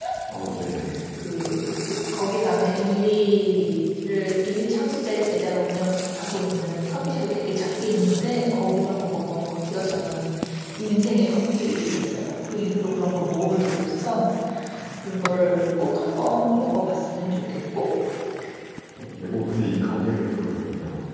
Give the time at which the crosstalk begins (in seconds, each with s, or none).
none